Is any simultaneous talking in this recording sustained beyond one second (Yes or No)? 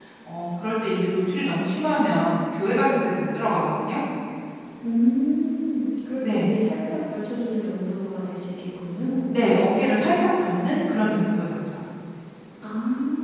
No